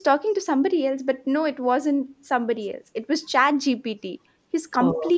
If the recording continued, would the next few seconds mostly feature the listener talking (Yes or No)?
No